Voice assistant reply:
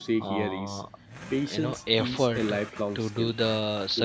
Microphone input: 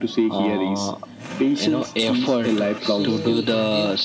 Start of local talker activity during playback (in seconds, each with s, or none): 2.8 s